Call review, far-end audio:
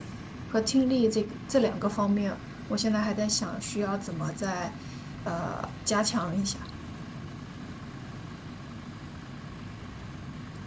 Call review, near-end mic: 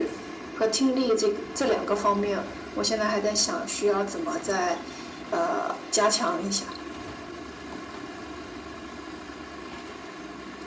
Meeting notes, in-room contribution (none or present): none